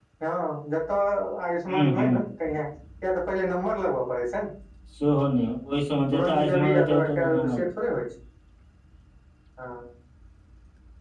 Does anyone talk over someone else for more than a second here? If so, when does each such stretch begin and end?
6.1-7.6

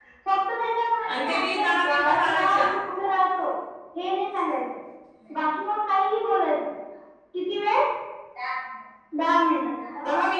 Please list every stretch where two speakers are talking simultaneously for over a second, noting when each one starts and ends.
1.2-2.7

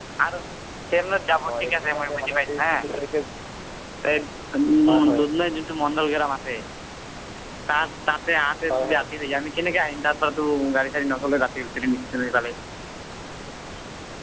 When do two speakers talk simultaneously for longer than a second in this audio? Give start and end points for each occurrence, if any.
1.5-2.7

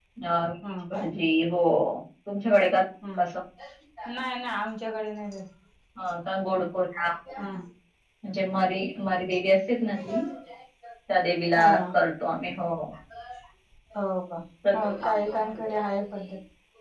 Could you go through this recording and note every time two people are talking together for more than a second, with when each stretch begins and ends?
none

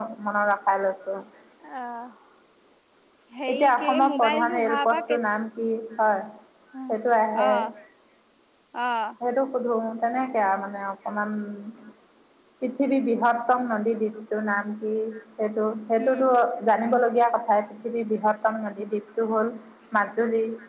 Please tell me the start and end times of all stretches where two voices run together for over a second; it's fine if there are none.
3.5-5.2

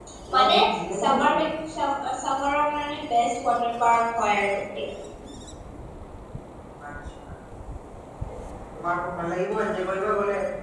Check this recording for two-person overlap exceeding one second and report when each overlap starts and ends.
none

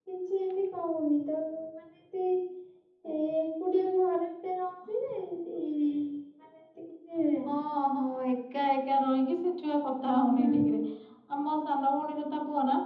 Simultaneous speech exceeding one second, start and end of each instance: none

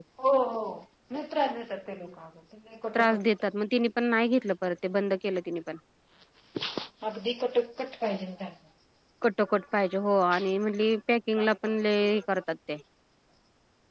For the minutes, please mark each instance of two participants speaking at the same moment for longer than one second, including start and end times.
none

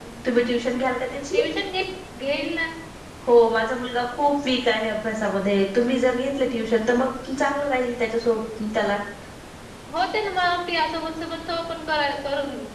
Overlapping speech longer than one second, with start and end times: none

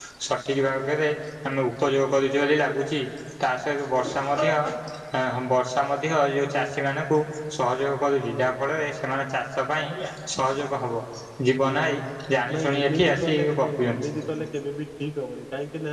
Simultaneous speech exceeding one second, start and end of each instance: 12.5-14.1

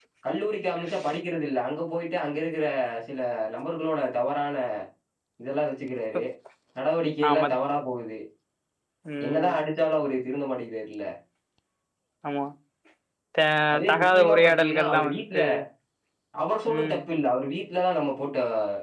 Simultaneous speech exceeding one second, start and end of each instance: 13.9-15.4

